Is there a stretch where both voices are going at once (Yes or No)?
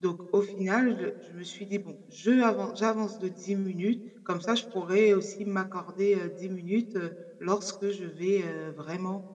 No